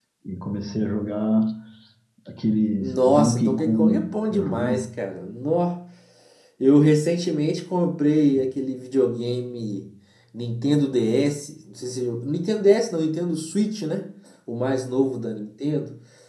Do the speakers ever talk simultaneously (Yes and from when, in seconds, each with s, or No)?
Yes, from 2.8 s